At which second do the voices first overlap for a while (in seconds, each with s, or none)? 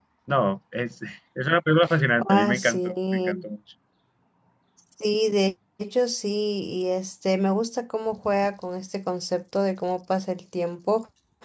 2.2 s